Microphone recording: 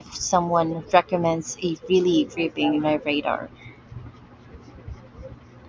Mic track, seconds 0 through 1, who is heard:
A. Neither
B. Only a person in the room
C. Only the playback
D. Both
B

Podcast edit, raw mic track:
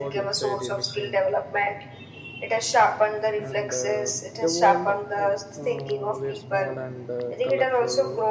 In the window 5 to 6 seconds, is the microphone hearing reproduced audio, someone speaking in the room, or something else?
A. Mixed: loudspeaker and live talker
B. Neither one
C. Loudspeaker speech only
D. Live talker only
A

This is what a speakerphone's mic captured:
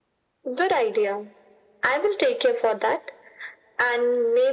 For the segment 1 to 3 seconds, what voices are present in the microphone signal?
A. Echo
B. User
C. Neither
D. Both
A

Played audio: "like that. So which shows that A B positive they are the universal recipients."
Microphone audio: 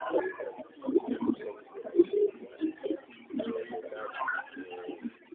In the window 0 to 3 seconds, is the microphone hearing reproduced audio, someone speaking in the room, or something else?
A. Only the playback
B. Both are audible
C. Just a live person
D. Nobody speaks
B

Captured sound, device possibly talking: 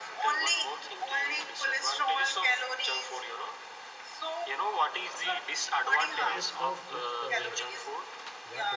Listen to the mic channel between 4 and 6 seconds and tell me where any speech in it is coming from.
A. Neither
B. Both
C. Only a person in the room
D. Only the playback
D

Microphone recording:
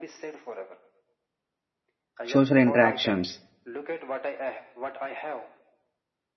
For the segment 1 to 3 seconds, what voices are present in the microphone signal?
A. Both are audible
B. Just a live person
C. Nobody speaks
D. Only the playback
A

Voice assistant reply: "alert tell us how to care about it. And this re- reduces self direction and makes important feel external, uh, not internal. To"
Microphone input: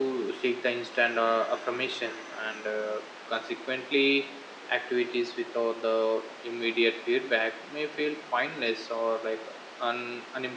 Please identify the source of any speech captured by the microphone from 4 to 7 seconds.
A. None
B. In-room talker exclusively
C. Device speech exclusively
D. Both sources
B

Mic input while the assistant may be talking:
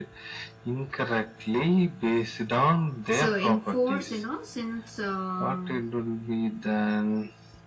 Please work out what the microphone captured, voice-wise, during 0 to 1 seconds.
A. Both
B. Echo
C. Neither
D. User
B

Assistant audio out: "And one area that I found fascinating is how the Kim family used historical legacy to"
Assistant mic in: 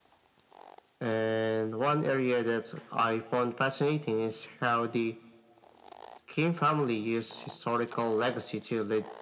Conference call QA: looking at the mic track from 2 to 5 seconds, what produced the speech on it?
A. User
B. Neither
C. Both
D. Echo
D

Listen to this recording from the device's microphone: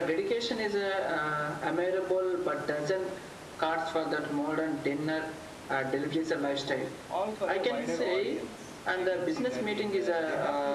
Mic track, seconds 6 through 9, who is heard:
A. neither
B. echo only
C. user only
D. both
D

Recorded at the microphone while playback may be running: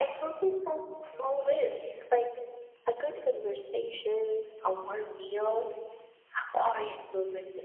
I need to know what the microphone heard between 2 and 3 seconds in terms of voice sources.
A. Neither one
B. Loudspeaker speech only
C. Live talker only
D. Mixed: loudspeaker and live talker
B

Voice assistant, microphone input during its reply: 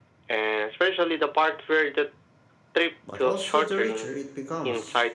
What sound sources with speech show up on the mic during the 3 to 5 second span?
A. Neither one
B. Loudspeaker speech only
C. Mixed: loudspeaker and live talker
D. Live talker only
C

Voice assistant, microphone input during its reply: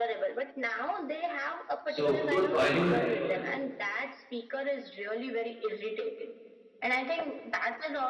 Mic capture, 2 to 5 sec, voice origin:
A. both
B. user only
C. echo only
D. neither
A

